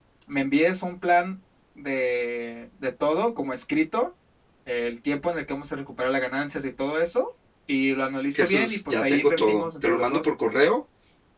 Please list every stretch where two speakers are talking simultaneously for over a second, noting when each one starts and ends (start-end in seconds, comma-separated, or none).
8.3-10.3